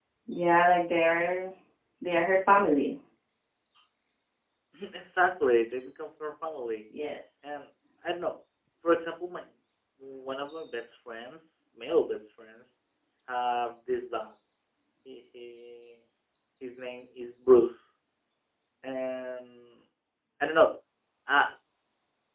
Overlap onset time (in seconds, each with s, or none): none